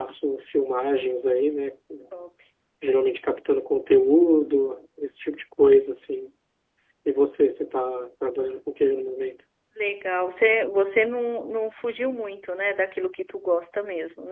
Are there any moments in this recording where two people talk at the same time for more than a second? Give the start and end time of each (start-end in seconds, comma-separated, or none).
none